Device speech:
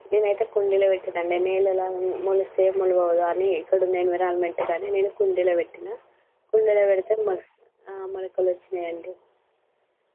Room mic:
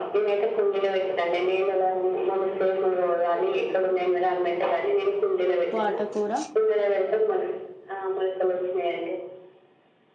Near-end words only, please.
పోటా కూర

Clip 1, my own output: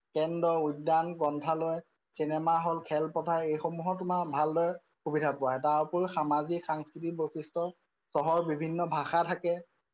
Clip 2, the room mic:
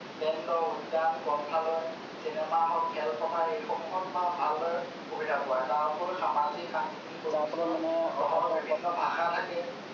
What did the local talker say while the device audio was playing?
যাৰ ফলত মানে অহা যোৱোৱা

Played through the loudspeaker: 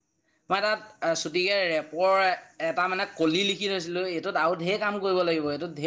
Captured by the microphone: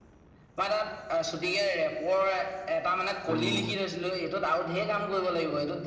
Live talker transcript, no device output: উম

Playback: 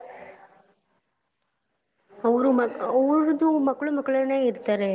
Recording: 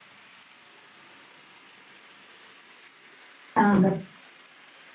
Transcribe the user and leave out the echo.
ಆ, ಅಂಬಾ

